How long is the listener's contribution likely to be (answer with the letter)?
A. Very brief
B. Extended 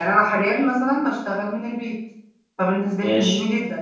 A